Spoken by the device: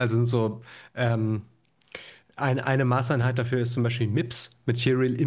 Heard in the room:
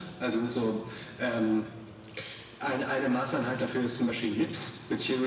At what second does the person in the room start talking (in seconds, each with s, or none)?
none